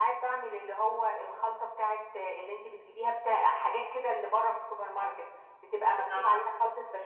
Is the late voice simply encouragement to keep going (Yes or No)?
Yes